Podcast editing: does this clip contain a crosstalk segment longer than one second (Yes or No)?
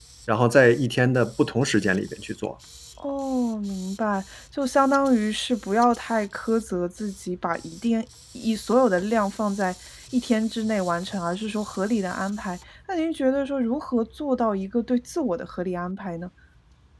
No